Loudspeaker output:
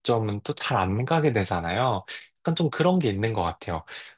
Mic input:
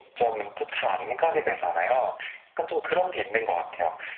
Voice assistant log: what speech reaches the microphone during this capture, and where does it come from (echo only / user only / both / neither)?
echo only